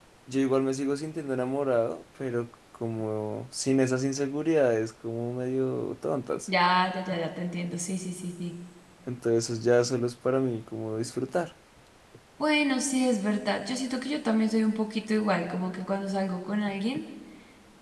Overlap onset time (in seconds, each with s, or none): none